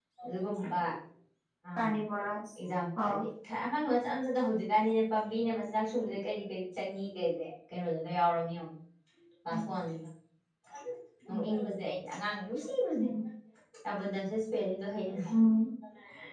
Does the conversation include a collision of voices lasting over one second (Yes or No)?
No